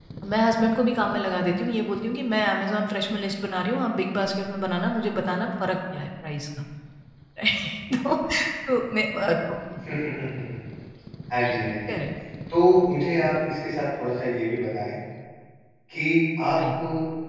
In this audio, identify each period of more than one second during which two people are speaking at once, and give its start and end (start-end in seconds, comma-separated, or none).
none